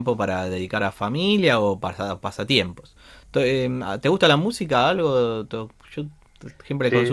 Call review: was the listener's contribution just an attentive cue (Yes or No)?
No